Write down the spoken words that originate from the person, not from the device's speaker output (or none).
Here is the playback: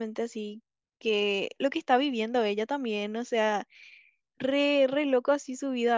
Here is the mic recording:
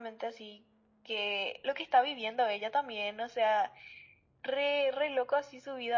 none